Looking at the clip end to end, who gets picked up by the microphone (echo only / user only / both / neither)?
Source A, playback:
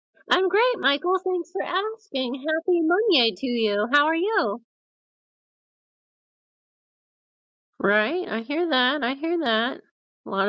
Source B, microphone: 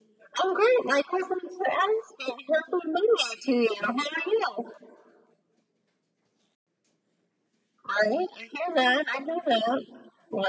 echo only